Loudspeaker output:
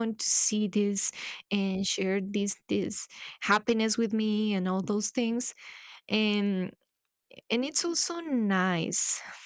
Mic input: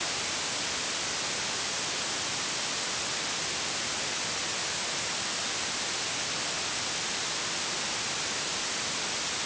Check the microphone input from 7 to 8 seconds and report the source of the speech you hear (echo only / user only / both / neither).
neither